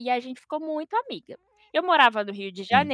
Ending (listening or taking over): listening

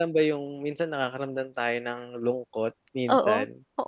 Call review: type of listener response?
taking over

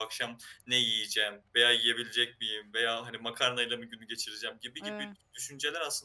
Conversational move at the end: listening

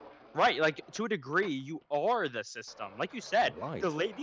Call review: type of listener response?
listening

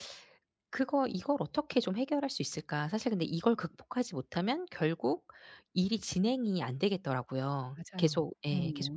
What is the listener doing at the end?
listening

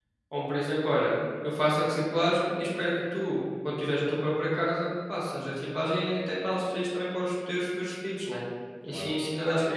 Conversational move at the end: listening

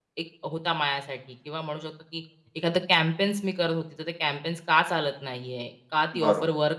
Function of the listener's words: listening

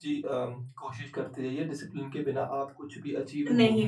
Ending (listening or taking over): taking over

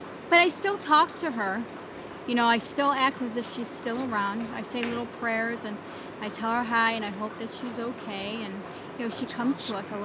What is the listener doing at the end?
listening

